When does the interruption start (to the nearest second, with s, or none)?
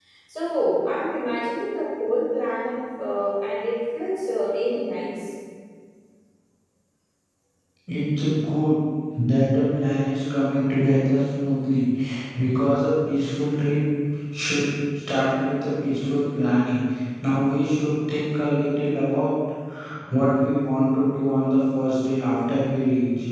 none